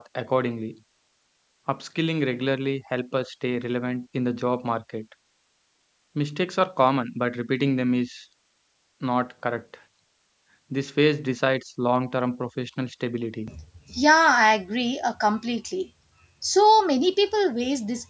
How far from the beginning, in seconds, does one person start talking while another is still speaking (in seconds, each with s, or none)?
none